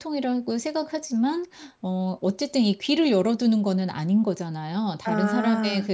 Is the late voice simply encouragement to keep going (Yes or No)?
Yes